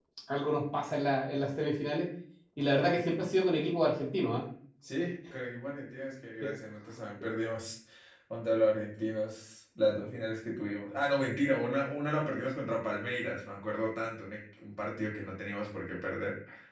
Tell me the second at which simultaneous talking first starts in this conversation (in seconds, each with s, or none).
none